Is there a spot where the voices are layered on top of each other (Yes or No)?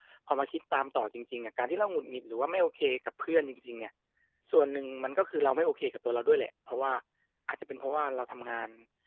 No